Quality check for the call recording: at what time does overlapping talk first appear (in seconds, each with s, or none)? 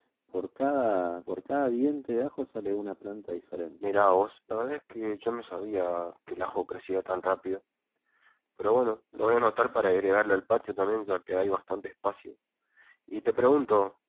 none